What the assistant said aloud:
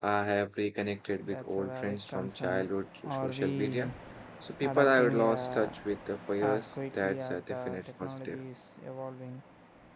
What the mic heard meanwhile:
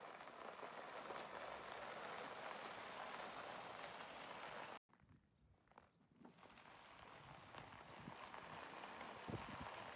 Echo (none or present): none